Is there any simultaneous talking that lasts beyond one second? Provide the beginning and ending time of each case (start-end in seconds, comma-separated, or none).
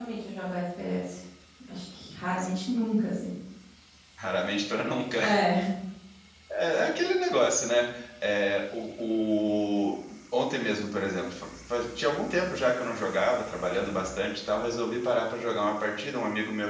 none